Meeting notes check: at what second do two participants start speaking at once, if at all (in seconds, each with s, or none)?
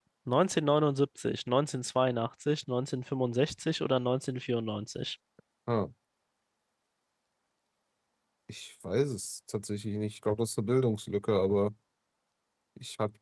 none